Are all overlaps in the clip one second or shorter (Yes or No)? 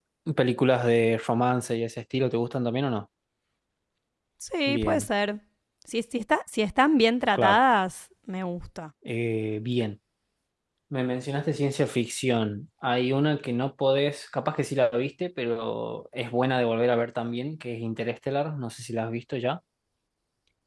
Yes